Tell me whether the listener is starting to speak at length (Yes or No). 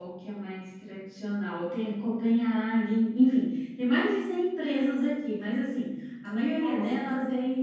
No